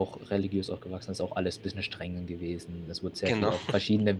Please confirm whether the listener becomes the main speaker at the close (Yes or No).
No